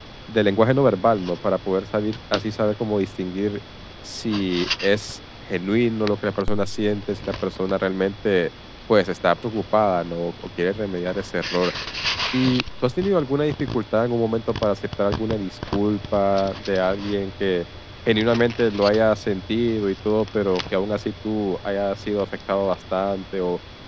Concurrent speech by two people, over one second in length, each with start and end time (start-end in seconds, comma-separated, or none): none